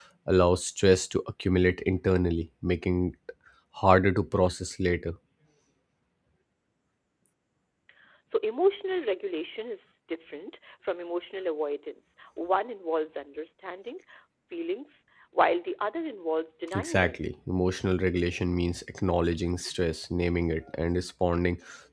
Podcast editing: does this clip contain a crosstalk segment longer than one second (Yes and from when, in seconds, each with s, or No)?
No